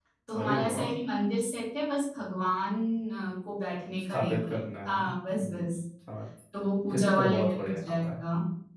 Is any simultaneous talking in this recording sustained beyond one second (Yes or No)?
Yes